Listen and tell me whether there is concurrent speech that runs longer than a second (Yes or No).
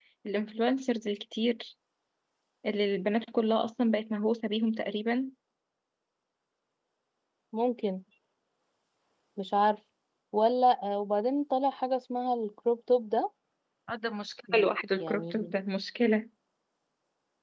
No